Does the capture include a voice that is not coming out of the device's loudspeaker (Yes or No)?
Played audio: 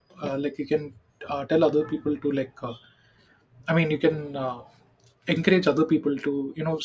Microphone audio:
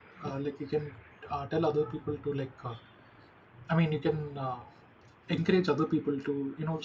No